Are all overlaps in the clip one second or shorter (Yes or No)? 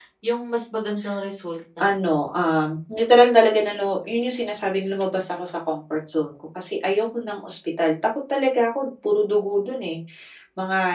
Yes